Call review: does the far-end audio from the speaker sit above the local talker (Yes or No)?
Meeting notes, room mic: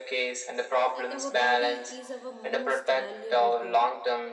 Yes